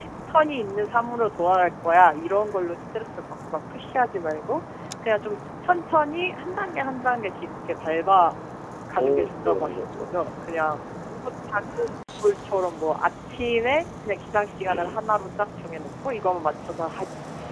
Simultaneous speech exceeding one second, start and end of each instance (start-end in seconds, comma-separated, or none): 9.0-10.2